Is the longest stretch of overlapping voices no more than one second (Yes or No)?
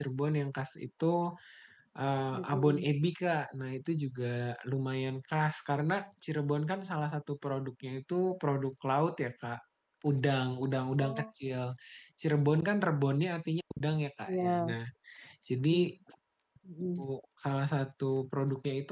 Yes